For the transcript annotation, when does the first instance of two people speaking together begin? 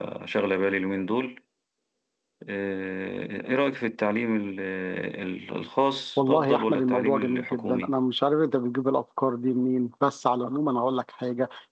6.2 s

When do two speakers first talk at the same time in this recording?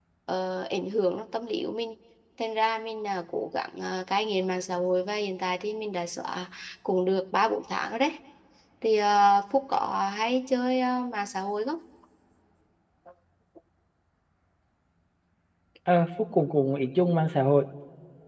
none

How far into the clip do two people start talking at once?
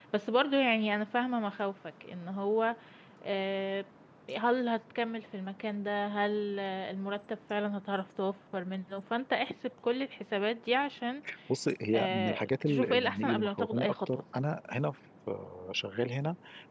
12.0 s

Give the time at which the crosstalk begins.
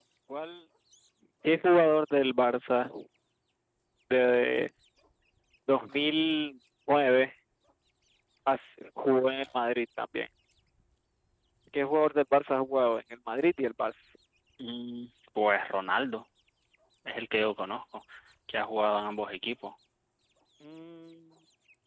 none

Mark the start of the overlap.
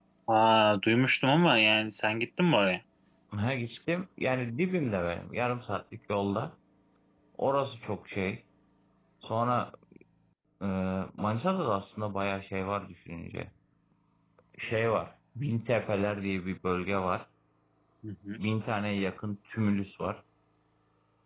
none

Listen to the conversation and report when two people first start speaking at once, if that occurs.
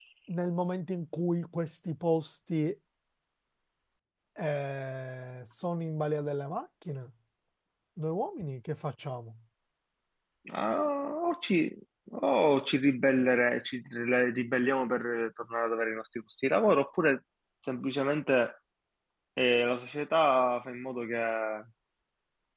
none

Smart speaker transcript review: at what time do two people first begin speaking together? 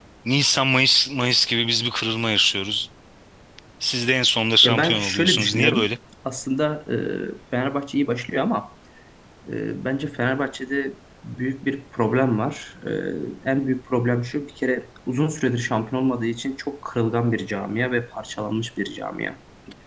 4.6 s

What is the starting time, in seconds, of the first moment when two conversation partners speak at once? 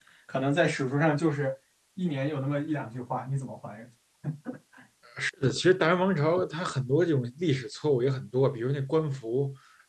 none

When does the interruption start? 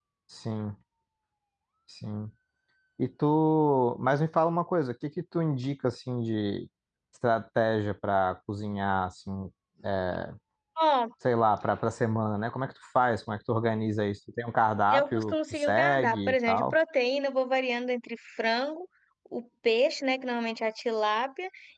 14.9 s

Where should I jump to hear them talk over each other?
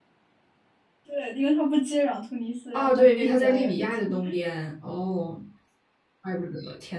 2.7 s

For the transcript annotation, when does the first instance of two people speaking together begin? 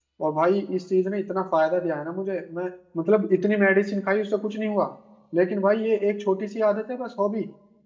none

